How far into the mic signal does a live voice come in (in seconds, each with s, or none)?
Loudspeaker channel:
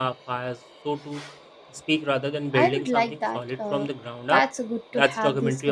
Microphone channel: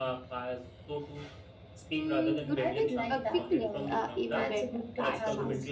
2.0 s